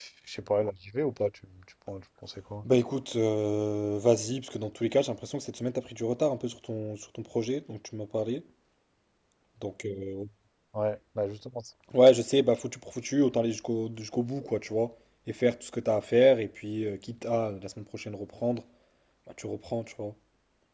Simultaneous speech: No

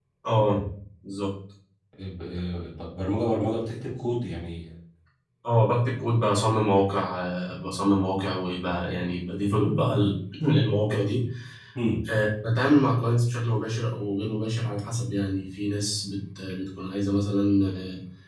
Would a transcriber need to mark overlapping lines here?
No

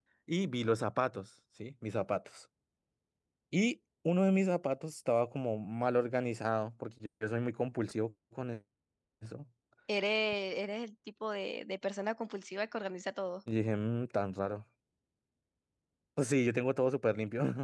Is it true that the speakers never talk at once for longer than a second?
Yes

